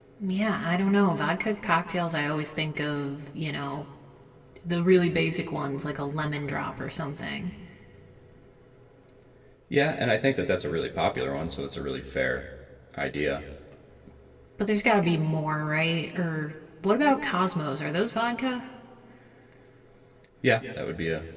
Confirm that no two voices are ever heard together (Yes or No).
Yes